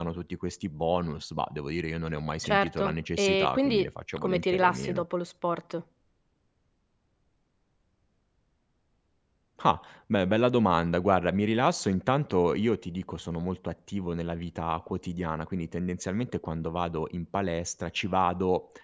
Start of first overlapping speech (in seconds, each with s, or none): 2.4 s